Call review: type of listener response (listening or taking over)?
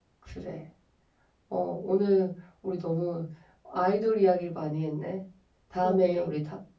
listening